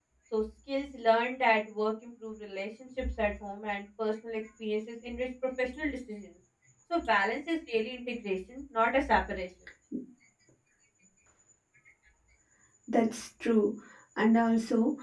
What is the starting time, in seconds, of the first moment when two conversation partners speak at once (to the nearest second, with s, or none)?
none